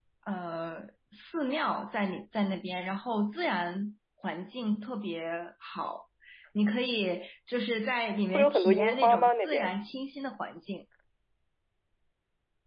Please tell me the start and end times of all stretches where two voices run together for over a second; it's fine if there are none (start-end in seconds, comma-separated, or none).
8.3-9.7